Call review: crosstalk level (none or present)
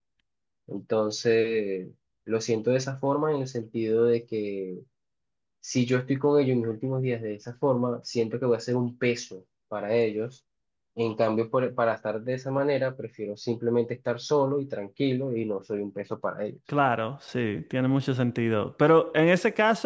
none